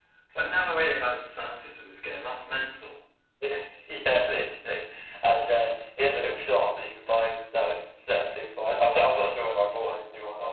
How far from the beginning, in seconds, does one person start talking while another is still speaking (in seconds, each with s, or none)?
none